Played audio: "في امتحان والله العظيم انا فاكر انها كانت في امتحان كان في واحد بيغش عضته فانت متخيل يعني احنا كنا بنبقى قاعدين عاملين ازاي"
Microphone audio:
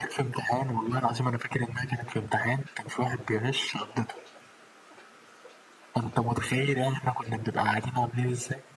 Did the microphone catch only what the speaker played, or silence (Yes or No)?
Yes